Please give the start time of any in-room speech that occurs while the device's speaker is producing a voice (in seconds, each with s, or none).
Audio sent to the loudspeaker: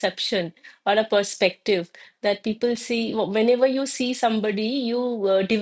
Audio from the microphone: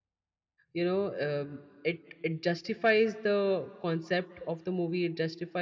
0.7 s